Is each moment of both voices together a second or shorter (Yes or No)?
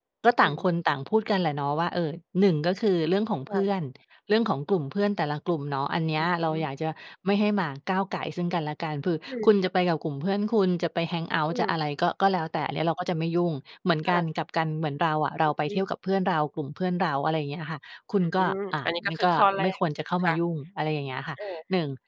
No